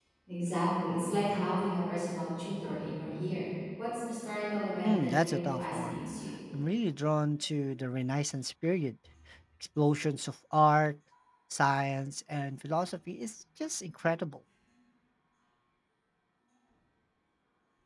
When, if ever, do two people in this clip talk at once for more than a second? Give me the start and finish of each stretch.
4.8-6.0

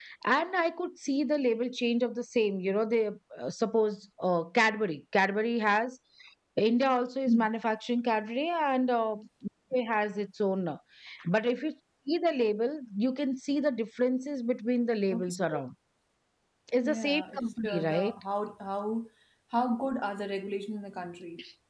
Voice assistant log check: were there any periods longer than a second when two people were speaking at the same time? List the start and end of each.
16.8-18.1

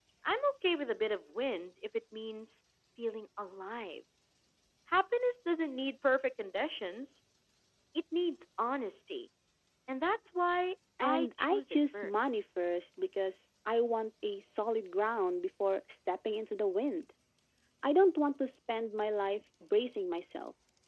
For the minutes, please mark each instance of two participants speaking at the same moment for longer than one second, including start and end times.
11.0-12.3

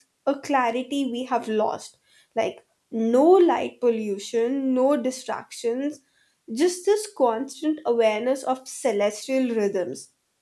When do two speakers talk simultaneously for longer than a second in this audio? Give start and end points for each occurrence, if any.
none

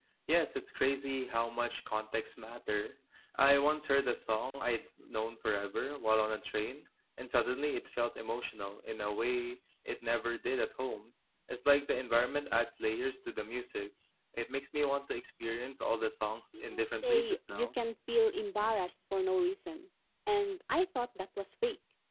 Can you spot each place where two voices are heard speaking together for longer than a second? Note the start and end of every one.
16.5-17.8

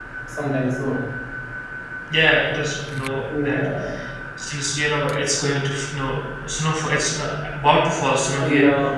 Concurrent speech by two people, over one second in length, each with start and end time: none

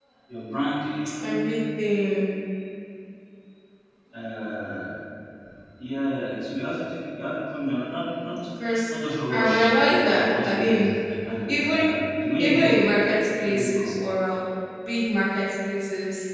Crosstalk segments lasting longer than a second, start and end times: 9.3-10.9

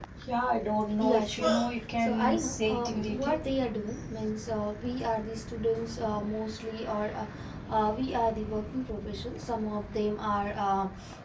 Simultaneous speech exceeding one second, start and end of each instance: 2.0-3.4

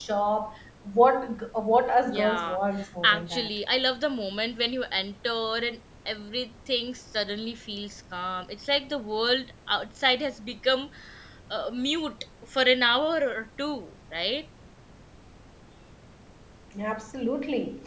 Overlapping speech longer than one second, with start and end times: none

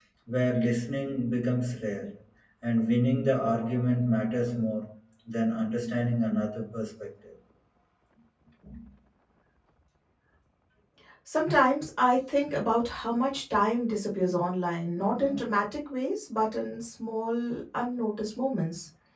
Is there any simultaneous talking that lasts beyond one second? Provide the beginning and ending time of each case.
none

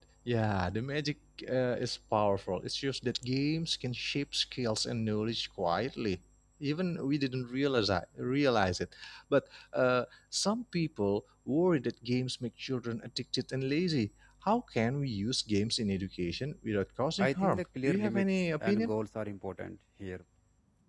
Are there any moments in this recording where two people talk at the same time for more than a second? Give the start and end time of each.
17.2-18.9

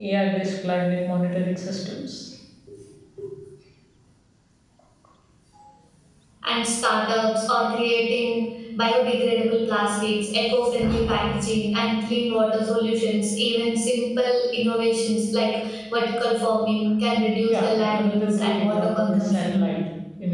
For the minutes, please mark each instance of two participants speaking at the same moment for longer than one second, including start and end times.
17.5-19.7

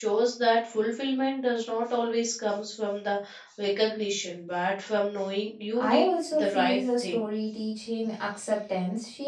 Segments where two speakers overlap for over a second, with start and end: 5.8-7.2

